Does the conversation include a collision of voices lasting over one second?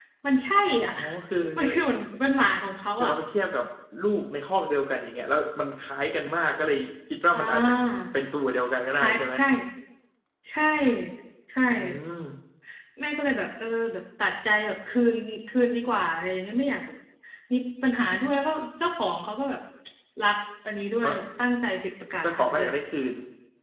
No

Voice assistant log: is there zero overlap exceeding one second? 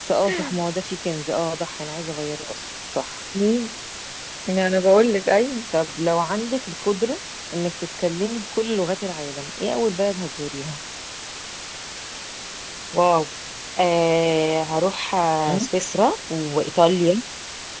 Yes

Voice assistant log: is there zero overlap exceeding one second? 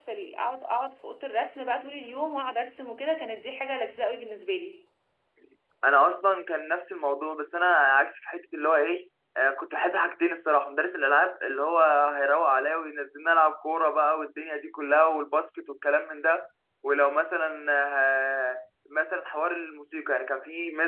Yes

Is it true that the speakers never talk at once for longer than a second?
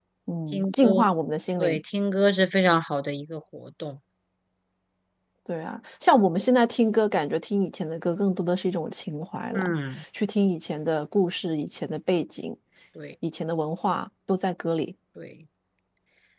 Yes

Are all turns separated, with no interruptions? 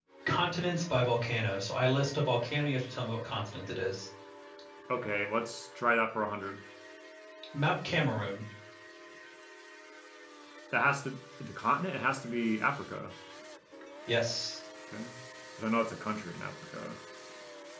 Yes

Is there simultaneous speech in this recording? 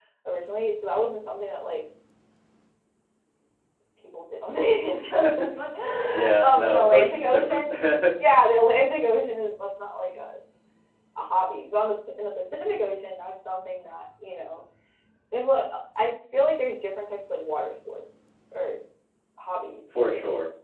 Yes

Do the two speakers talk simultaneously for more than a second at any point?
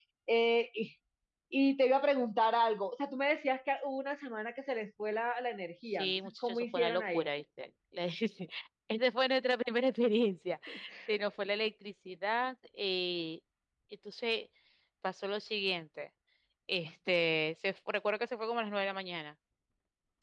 Yes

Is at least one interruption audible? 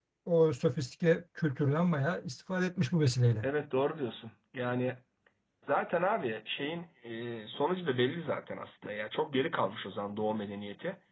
No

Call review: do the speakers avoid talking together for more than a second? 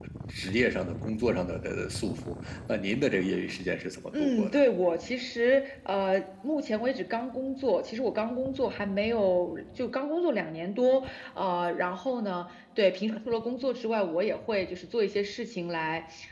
Yes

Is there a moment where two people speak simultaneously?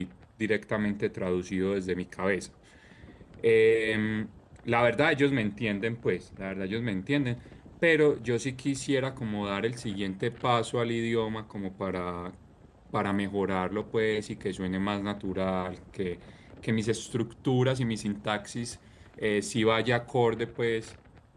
No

